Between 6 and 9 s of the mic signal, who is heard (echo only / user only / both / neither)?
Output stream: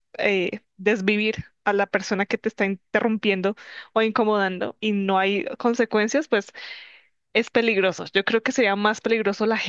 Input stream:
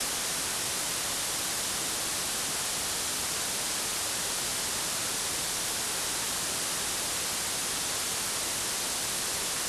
neither